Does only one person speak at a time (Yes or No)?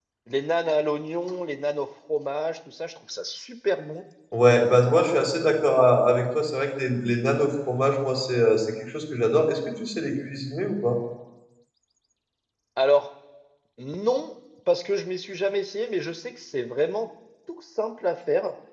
Yes